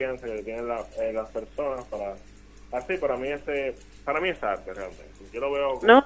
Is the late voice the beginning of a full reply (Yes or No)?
Yes